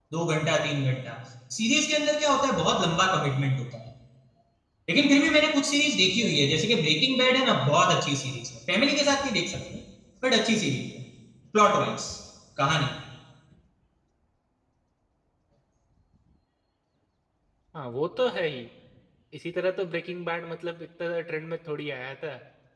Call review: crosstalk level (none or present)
none